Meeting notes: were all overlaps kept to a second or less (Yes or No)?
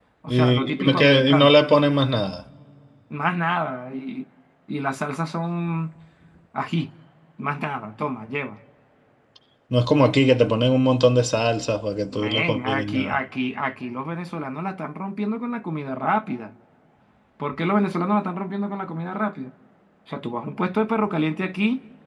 No